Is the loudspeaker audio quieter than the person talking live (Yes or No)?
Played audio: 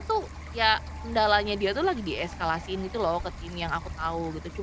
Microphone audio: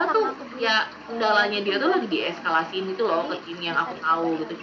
No